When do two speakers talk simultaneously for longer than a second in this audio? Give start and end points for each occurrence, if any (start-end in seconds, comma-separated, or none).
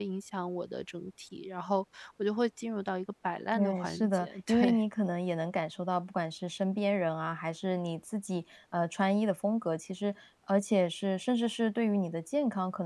3.5-4.8